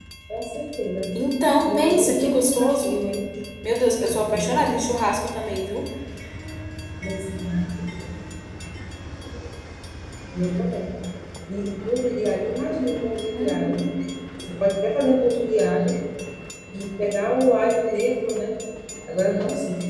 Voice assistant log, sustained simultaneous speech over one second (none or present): present